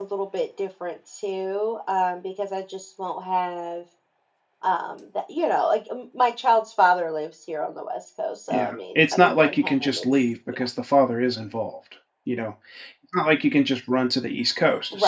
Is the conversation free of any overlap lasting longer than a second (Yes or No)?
No